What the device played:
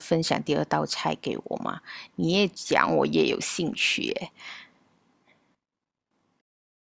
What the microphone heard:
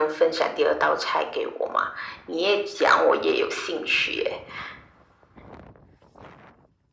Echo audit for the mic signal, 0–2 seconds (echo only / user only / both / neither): echo only